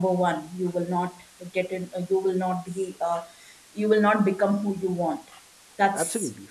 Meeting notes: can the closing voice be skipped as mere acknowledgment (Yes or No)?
Yes